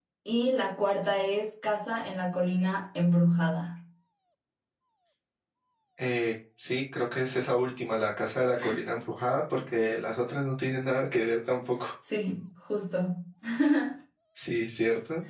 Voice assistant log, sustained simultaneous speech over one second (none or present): none